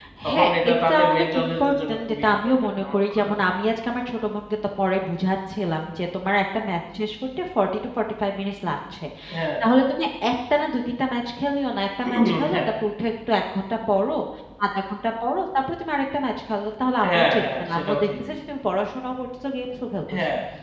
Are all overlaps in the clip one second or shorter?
No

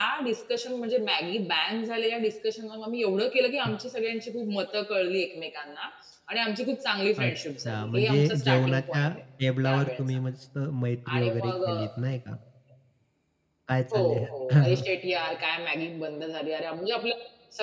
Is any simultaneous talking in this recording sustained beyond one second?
Yes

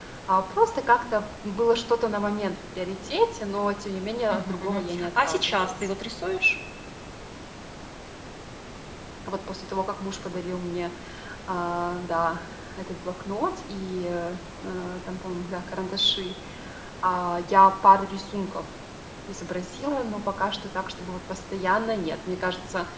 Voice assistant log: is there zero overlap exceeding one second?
No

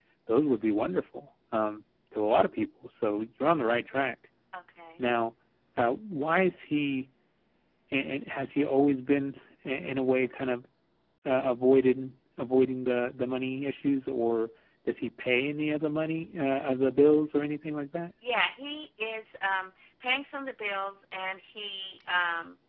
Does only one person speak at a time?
Yes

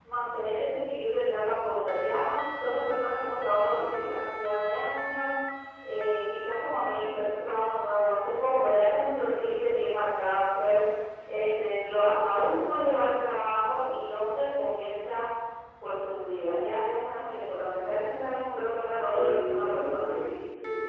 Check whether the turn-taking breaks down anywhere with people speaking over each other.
Yes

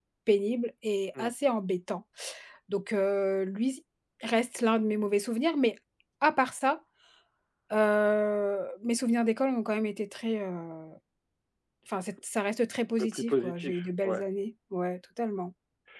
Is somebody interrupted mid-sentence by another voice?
Yes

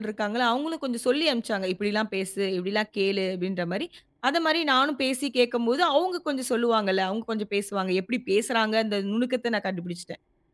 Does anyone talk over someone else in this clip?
No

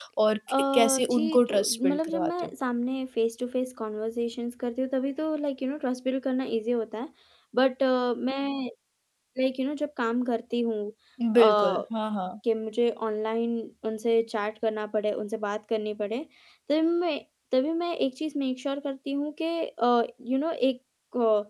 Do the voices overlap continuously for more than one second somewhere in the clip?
Yes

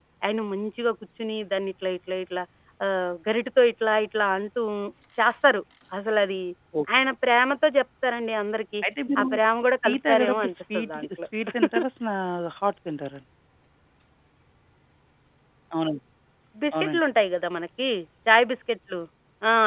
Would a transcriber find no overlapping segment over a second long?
No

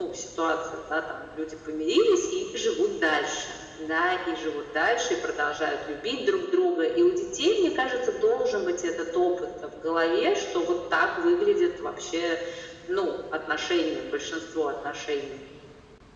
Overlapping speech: No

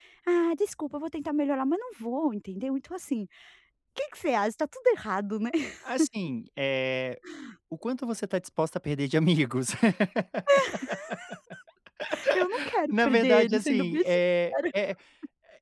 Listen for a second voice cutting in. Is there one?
Yes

